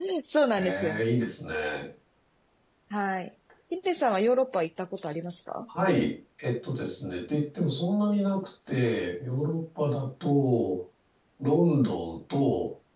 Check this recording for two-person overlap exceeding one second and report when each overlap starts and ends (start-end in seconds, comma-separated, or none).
none